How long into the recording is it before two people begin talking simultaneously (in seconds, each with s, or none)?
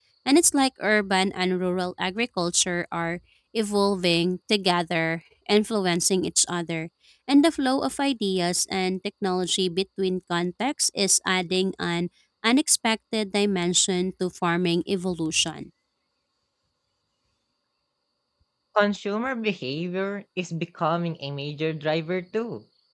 none